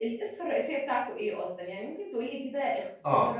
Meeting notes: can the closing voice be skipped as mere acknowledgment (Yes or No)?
No